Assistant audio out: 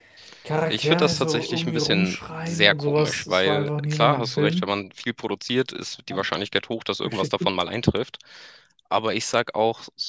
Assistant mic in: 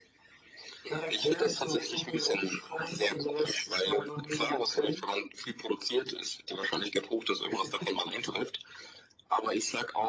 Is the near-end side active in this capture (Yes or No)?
No